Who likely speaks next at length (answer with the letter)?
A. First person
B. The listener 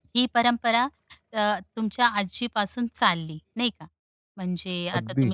A